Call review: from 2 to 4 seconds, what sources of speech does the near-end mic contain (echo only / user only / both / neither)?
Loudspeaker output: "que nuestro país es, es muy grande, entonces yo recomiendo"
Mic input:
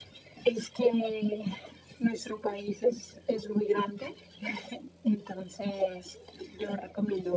echo only